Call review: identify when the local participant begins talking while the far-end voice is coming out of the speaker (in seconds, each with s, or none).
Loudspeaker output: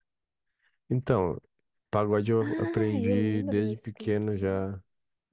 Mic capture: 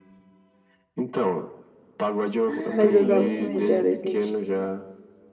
2.7 s